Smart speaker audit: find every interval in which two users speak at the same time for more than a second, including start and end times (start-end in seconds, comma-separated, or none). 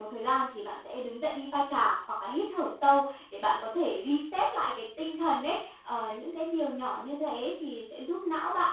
none